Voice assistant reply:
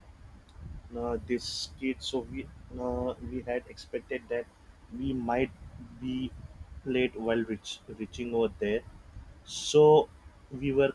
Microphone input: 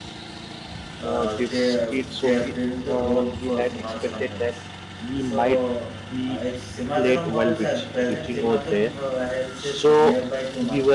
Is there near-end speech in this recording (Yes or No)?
Yes